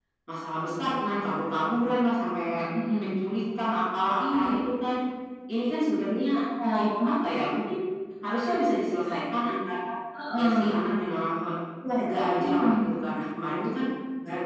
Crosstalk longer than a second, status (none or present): none